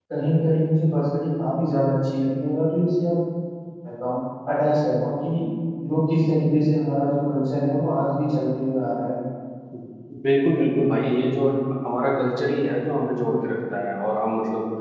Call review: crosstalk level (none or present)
none